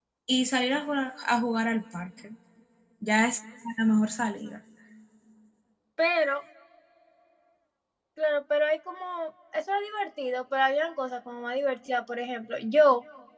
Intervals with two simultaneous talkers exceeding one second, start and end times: none

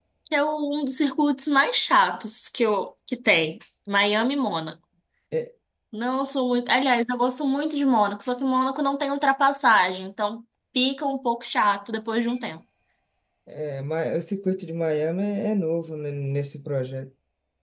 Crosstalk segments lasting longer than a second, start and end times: none

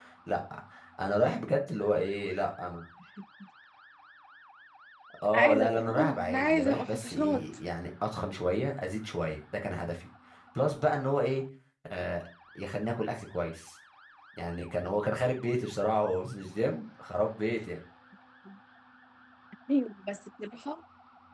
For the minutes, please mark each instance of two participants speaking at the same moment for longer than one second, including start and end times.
5.3-7.5

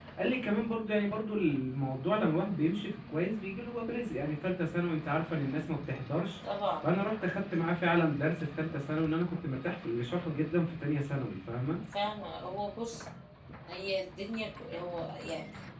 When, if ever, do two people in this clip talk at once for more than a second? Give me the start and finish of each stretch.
none

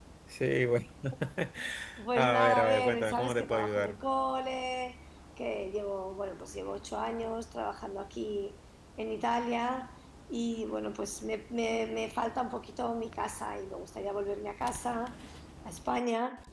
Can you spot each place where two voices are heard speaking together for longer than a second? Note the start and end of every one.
2.1-4.0

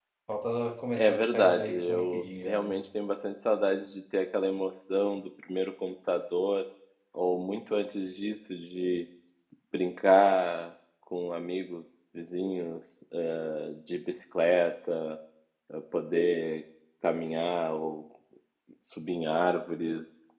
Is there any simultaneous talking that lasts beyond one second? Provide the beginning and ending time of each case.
1.0-2.8

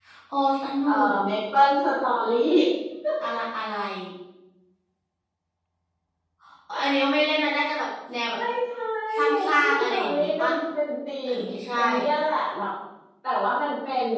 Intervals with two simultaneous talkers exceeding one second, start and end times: 9.2-10.5

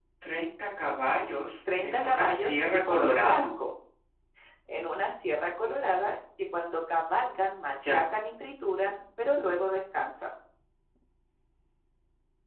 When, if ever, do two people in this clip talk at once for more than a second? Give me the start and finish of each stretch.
1.8-3.5

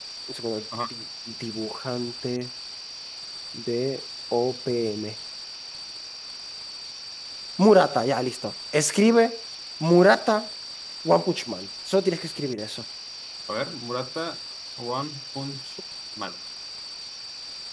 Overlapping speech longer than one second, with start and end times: none

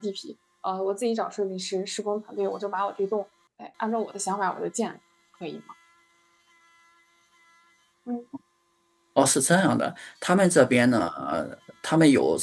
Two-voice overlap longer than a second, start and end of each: none

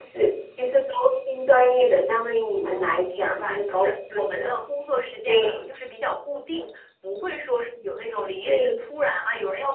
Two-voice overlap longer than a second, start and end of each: 2.6-4.6

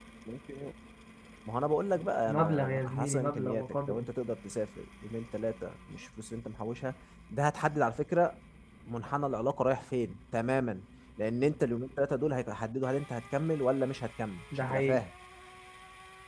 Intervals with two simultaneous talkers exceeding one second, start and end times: 2.2-4.1

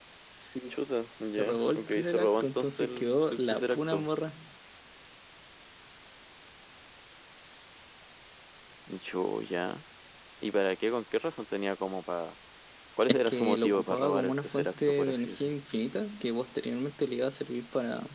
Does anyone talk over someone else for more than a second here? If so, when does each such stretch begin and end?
1.4-4.1, 13.1-15.5

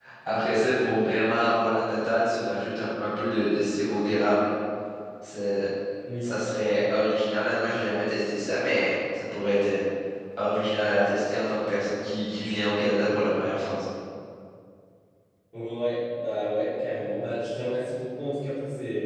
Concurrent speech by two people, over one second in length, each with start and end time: none

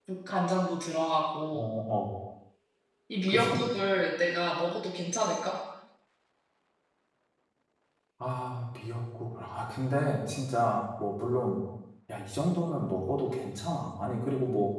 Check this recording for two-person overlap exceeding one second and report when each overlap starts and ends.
none

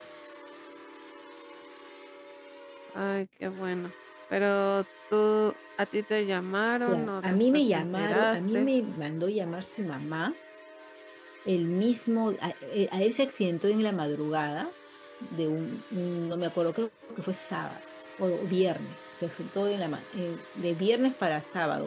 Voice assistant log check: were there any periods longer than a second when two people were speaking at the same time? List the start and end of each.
6.9-8.7

